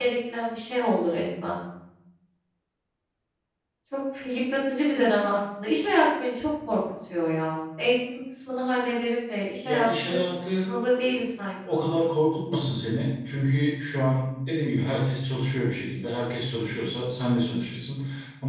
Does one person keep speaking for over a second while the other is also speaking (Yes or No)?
No